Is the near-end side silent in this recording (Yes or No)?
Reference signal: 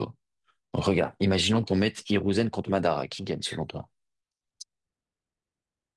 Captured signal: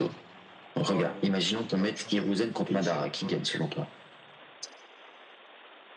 No